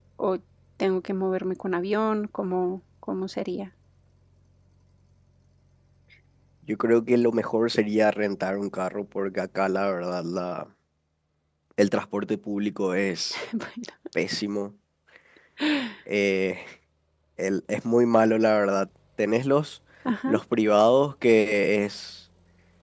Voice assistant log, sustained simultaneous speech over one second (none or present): none